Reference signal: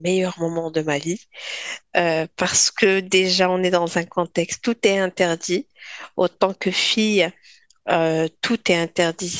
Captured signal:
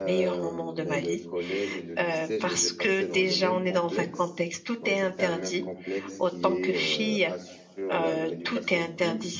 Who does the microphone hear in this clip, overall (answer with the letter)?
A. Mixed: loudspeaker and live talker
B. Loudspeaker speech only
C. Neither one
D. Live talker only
A